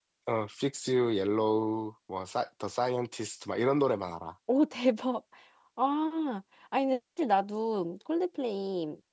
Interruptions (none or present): none